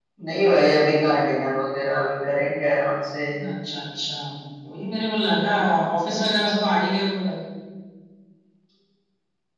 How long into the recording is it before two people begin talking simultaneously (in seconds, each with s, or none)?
none